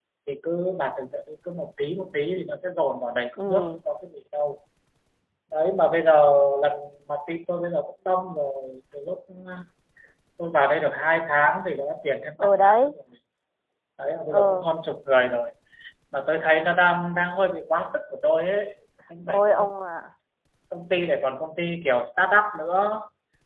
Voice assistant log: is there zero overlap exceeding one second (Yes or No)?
Yes